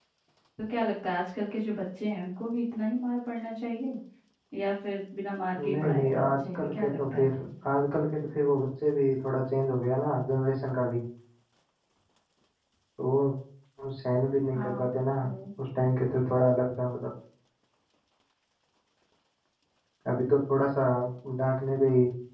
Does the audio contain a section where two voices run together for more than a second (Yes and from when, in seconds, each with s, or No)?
Yes, from 5.6 s